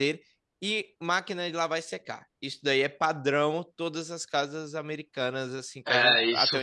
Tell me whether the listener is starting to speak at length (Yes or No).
Yes